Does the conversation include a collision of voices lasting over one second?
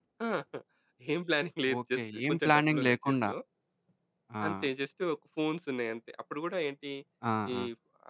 Yes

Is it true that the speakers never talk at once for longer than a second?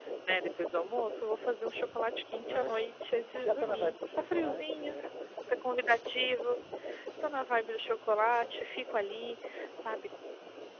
No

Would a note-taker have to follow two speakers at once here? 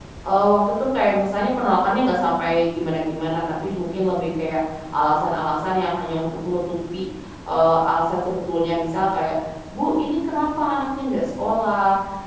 No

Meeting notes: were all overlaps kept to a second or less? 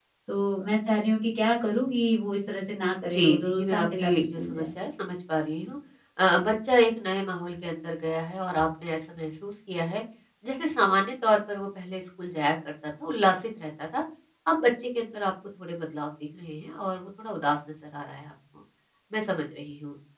No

